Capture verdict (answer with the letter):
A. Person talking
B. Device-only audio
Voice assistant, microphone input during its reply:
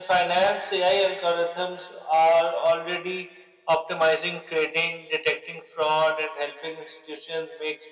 B